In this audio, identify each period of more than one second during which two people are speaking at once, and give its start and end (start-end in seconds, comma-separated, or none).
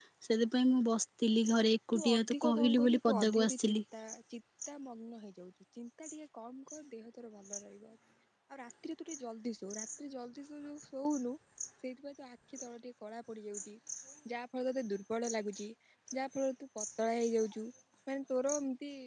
1.9-3.8